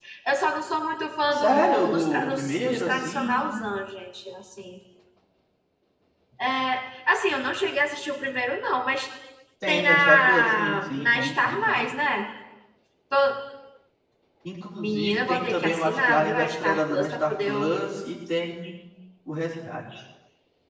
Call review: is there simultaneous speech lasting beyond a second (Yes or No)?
Yes